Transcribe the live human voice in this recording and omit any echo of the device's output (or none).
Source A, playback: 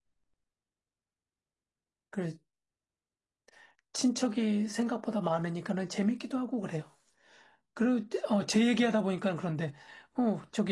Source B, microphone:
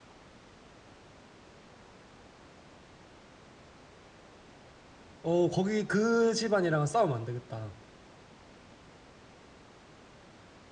어, 거기 그 집안이랑은 싸우면 안 되겠다.